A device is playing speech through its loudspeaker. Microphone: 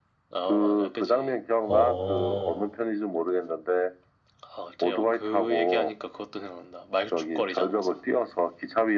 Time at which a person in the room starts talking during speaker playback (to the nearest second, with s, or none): 2 s